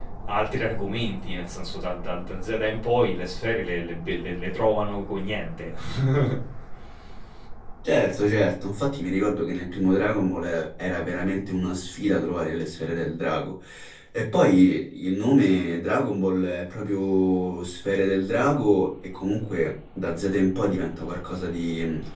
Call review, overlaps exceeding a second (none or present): none